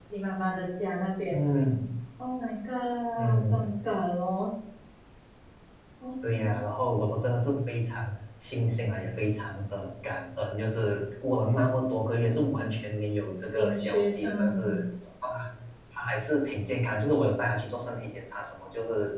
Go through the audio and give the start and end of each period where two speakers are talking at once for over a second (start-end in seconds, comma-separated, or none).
13.6-14.8